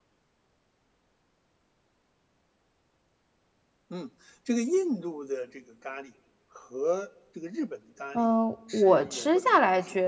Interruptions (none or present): present